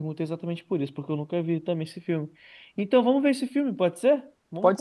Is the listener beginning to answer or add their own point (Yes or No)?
Yes